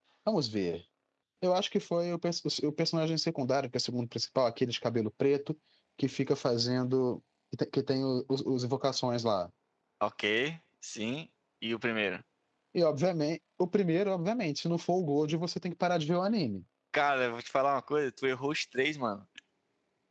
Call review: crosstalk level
none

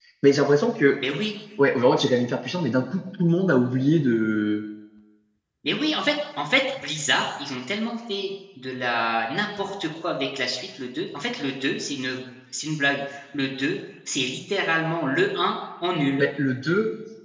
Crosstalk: none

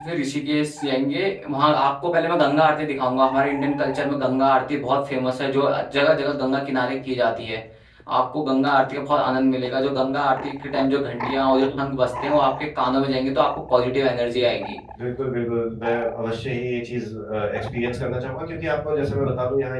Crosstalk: none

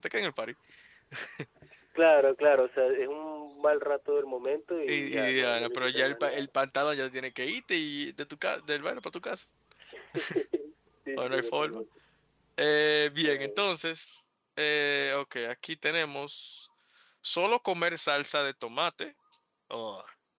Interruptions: present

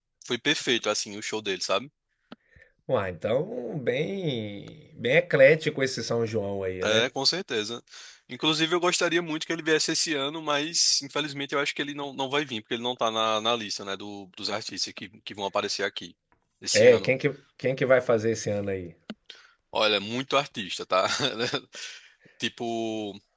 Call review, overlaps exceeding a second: none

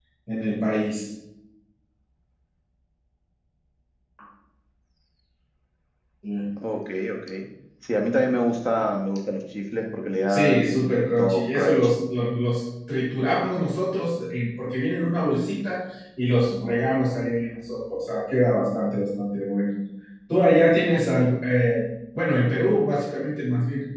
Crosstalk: present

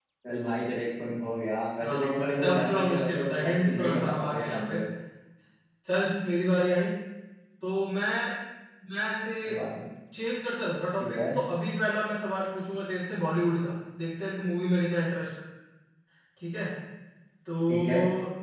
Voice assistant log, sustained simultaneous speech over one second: present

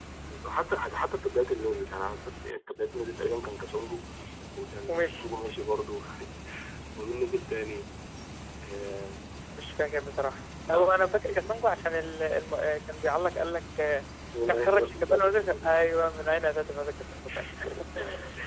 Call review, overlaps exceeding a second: present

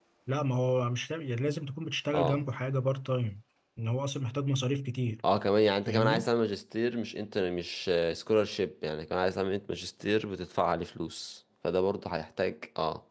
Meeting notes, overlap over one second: none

